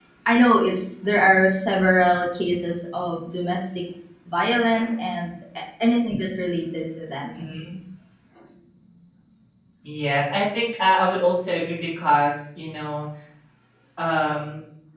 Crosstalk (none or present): none